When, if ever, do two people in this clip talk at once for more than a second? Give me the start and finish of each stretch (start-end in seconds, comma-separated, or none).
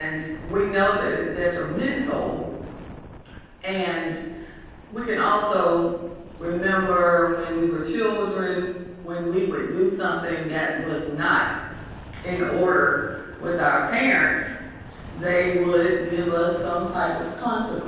none